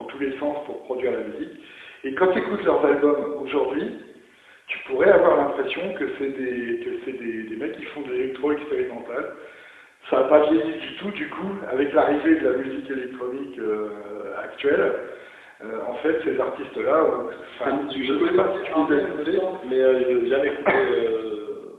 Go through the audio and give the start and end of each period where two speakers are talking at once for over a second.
17.7-19.4

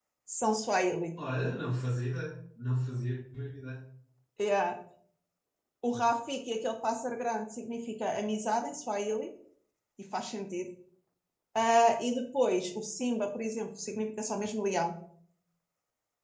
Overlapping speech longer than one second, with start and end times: none

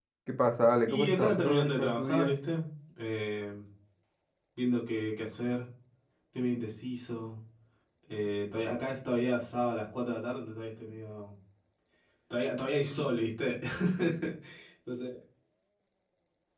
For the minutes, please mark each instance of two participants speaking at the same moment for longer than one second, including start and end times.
0.9-2.3

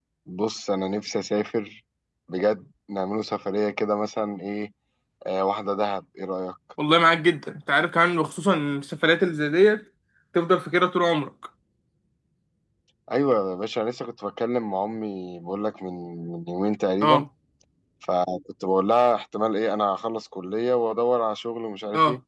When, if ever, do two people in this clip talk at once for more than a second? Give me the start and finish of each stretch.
none

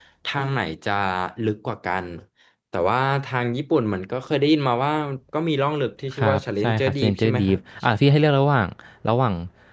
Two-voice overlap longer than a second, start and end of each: 6.2-7.6

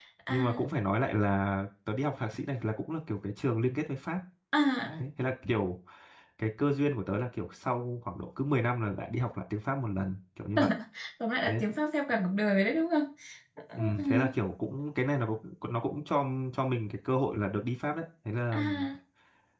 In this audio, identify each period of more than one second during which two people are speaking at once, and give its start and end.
none

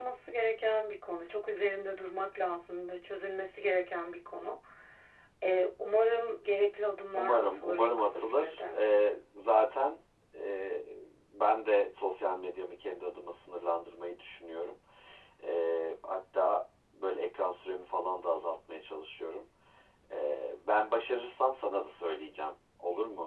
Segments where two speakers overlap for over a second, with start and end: 7.1-8.6

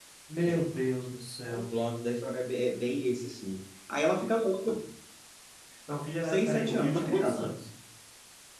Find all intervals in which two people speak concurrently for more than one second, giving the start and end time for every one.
6.2-7.5

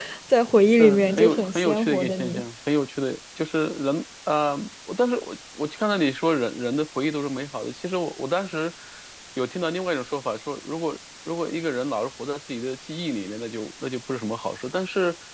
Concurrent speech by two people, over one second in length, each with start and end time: 0.8-2.4

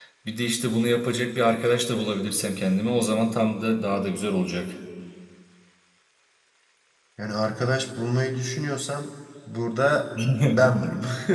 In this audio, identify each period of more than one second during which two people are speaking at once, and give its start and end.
none

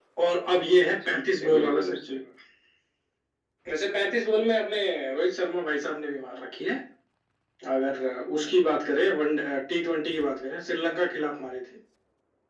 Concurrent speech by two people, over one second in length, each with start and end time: 0.9-2.2

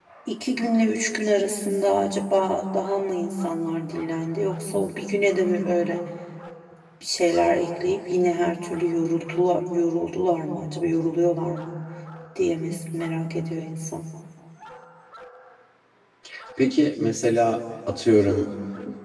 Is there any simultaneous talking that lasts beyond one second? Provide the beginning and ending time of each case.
none

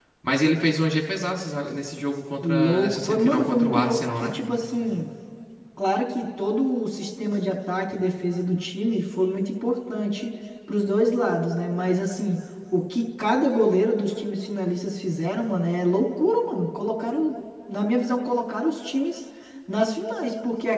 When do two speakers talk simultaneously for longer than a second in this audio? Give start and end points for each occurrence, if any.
2.4-4.4

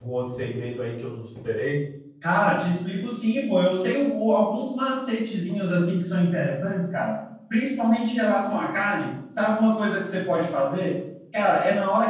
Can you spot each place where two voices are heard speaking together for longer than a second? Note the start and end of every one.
none

